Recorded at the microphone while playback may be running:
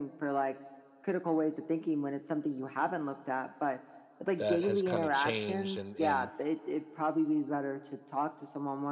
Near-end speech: present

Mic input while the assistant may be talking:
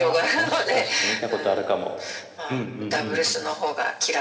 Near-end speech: present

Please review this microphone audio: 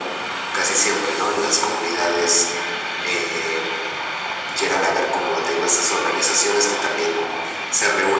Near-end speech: none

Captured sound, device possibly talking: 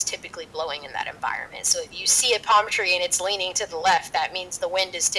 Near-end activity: none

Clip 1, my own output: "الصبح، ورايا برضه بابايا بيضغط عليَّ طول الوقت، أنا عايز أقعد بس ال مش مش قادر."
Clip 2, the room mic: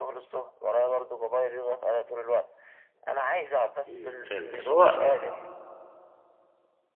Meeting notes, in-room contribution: present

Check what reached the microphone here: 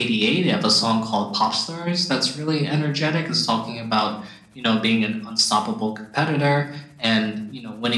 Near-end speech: none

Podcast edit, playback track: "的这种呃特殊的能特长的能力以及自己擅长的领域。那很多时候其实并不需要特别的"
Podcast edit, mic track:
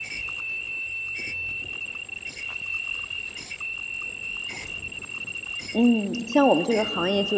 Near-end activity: present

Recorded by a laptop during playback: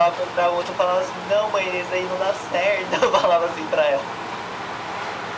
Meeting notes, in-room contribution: none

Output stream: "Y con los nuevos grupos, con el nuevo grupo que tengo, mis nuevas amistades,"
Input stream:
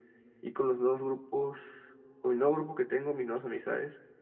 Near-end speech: none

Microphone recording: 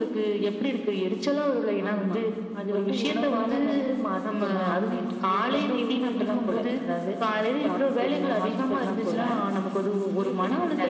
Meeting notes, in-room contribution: none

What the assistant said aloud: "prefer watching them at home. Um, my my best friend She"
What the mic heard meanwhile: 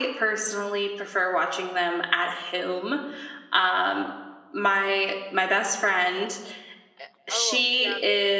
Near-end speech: present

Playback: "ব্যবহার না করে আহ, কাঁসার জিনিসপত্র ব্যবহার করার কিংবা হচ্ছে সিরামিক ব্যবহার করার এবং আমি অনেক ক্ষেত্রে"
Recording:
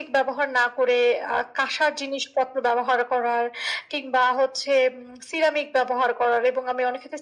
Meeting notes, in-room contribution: none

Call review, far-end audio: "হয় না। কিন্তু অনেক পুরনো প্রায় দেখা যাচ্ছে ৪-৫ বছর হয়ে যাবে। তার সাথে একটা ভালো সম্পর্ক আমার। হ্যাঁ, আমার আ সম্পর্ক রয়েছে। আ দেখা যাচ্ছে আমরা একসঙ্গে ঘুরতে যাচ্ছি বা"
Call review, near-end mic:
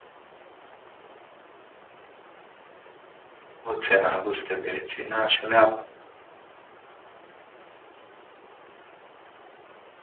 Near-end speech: present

